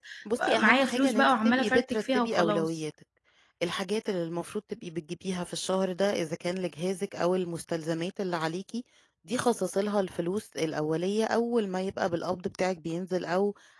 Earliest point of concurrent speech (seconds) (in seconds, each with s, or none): 0.6 s